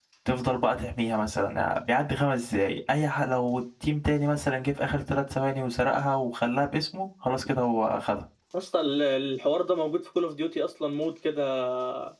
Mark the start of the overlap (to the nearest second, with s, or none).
none